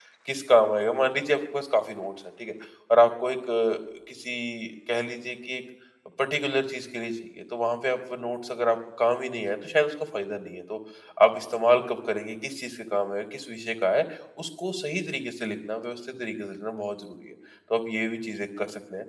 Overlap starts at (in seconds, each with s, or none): none